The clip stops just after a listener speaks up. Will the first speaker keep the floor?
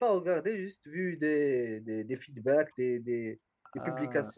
Yes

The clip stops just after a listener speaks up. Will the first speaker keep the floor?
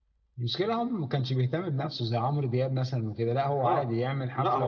No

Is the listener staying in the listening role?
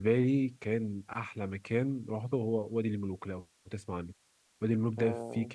Yes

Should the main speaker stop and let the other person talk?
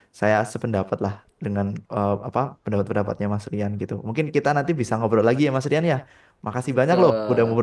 No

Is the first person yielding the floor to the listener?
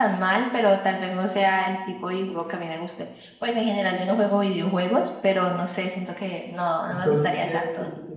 Yes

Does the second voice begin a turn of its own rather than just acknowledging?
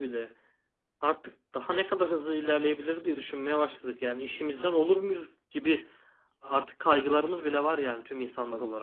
Yes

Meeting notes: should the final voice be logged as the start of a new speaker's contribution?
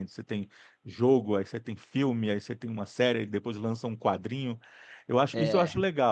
No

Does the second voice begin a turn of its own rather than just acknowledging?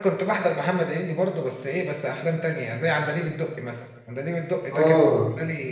No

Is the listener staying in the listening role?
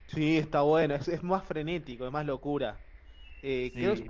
Yes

